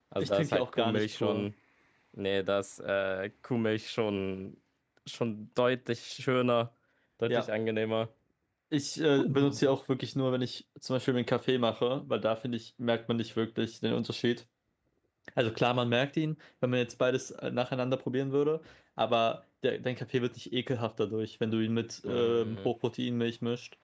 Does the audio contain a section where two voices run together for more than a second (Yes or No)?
Yes